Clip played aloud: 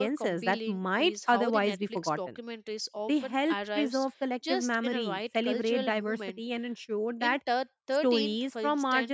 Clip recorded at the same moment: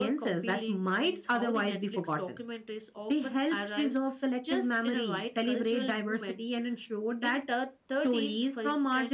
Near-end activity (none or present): none